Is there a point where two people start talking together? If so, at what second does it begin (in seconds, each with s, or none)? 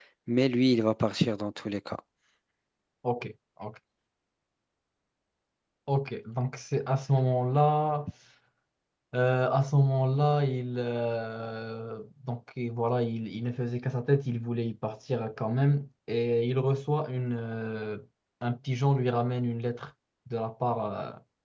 none